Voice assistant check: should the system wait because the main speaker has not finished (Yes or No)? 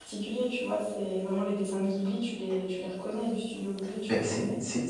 No